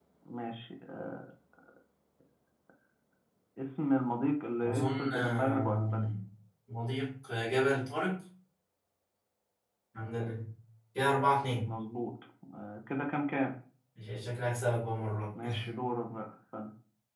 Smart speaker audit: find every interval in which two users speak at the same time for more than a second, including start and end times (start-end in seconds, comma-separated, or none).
4.6-6.1